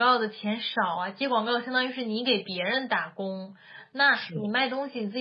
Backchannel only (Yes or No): Yes